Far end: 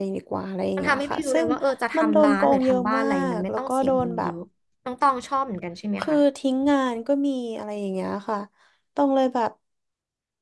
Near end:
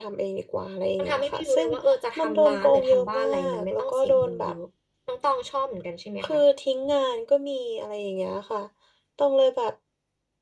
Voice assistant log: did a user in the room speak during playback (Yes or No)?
No